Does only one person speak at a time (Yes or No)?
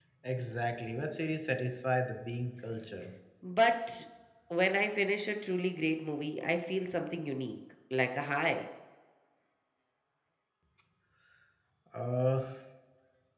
Yes